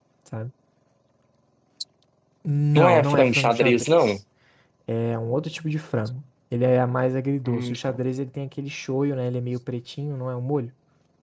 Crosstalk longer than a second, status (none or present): present